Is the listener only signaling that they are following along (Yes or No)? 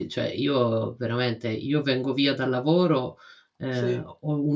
Yes